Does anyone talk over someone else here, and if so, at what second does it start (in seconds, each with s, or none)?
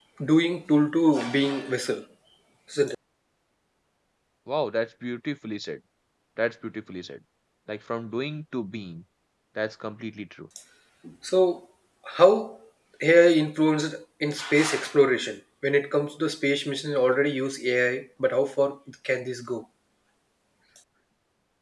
none